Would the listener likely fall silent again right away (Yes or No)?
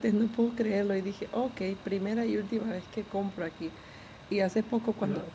Yes